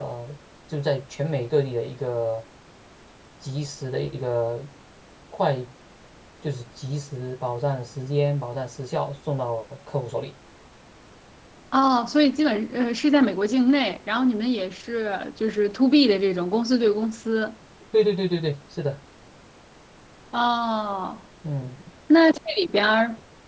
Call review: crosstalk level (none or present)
none